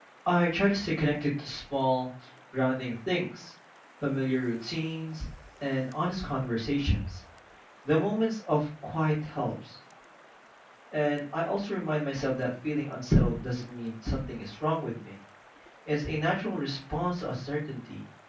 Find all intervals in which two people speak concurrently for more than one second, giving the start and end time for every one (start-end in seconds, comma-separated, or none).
none